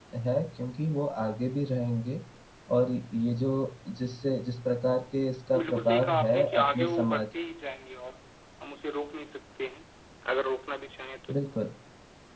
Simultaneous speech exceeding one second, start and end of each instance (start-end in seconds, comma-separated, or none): 5.6-7.3